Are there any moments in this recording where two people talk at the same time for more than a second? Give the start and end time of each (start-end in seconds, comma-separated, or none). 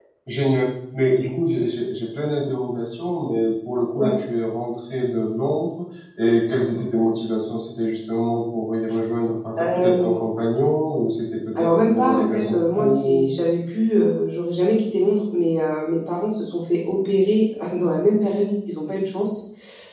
11.6-13.3